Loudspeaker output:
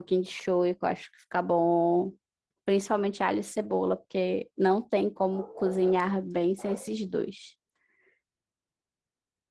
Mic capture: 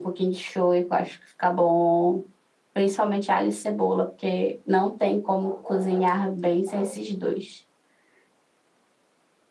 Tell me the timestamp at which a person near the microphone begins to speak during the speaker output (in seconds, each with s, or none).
none